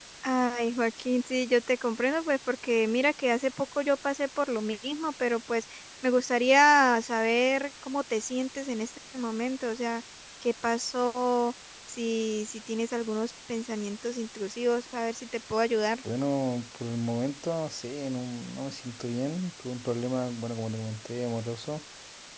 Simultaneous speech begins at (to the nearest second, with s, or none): none